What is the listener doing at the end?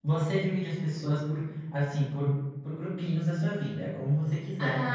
taking over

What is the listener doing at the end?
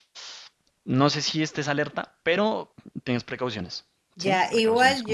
taking over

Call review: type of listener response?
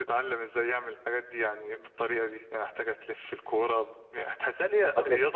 listening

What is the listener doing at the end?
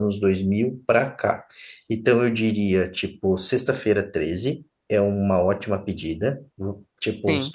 listening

